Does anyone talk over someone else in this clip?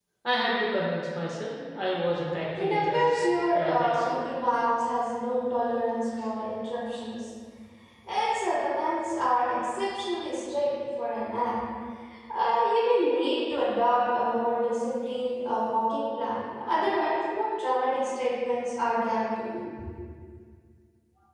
Yes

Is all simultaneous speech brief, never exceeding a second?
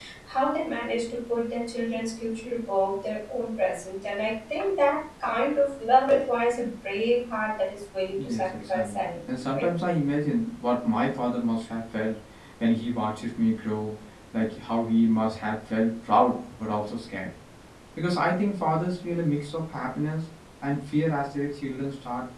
No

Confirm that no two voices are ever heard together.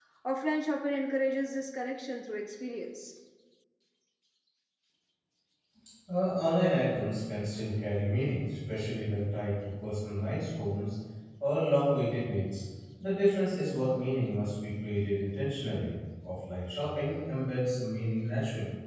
Yes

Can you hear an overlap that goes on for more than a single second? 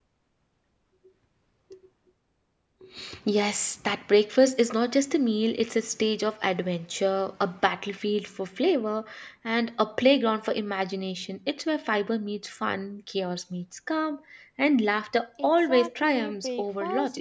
Yes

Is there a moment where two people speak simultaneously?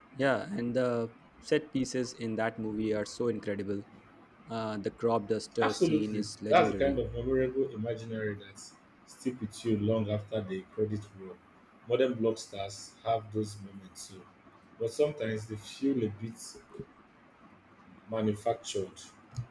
Yes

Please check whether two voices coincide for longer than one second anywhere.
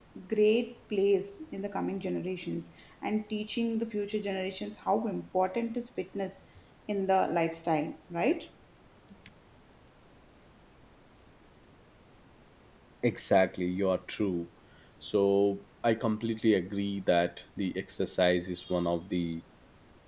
No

